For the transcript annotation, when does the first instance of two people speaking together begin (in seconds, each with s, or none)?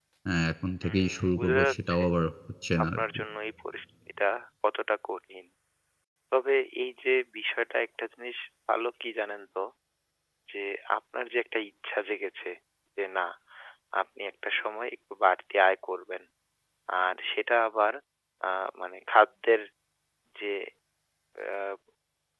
0.8 s